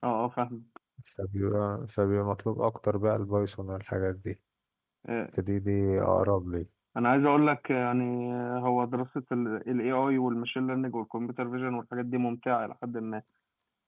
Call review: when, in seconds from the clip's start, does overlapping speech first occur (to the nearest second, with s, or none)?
none